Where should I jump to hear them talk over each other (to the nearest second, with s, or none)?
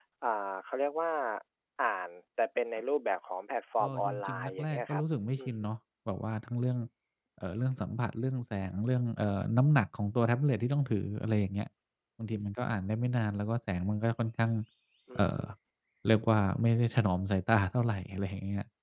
4 s